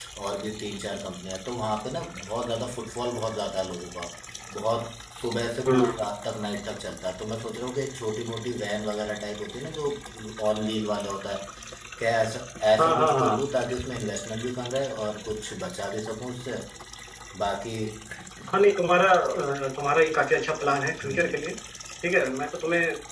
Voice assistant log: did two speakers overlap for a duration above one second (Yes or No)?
No